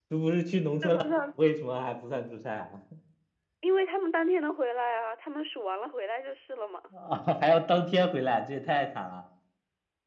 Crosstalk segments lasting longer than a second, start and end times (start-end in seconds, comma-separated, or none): none